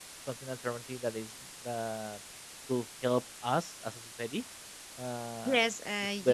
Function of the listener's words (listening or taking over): taking over